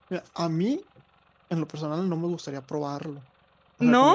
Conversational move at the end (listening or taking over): listening